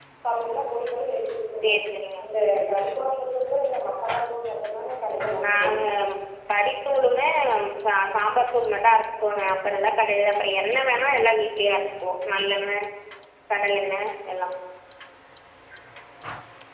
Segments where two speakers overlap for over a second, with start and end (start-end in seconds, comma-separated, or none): none